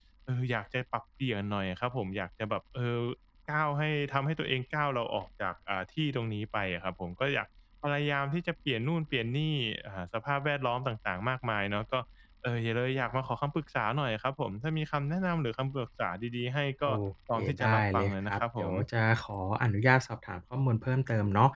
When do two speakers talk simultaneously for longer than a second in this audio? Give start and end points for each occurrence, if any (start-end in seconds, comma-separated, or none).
17.4-18.7